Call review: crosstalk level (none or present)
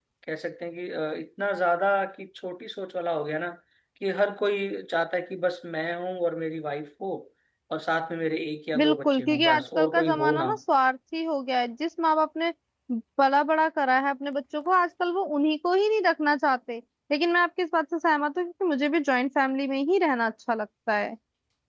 present